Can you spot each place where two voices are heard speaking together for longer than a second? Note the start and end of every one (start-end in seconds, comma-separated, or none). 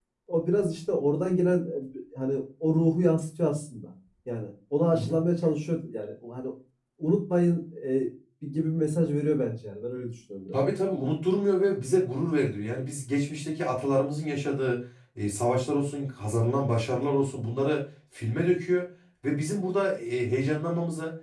none